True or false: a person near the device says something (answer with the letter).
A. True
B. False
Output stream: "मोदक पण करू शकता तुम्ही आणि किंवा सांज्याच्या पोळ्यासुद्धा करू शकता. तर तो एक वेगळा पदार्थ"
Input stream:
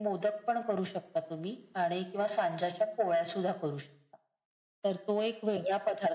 B